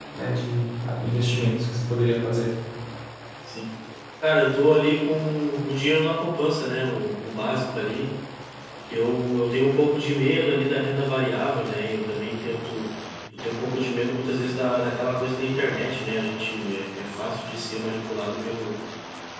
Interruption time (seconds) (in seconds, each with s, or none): none